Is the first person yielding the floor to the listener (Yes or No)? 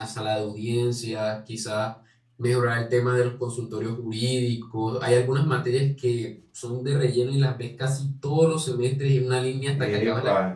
Yes